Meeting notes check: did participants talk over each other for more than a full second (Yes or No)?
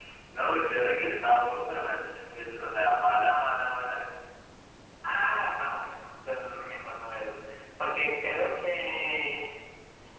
No